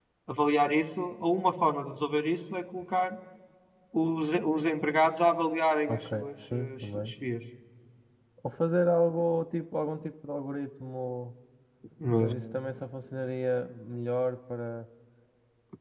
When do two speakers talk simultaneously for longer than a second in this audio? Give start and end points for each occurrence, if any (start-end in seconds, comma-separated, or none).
5.9-7.1